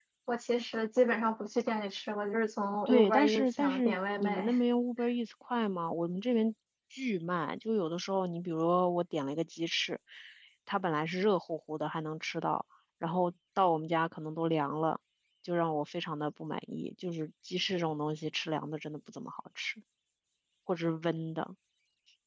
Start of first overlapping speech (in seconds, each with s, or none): 2.9 s